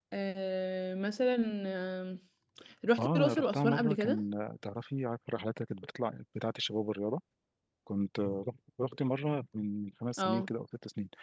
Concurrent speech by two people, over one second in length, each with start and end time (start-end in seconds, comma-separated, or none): 3.0-4.2